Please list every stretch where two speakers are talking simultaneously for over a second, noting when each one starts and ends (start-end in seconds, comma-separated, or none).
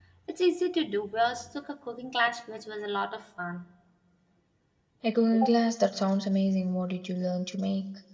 none